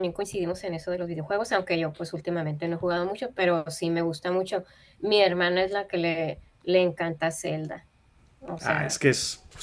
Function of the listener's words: taking over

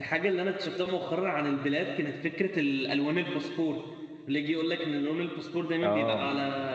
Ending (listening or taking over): listening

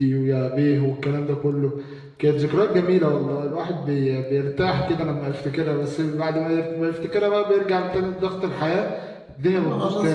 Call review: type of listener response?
taking over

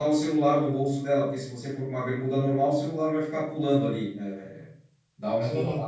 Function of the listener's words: listening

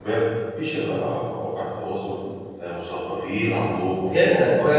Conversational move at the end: taking over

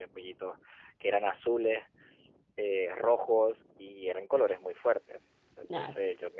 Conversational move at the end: listening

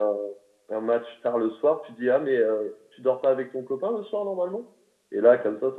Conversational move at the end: listening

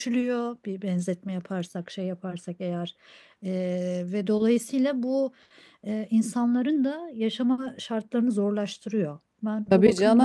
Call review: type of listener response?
taking over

